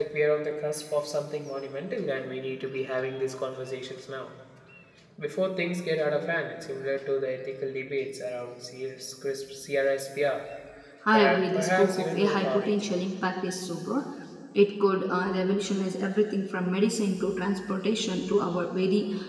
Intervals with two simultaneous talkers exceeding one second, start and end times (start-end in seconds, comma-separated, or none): 11.1-12.9